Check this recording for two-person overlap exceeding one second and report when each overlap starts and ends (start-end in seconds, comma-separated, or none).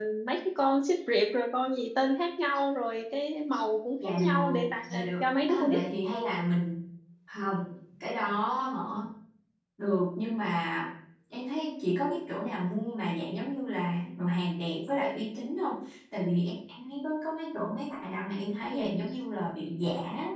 4.2-5.8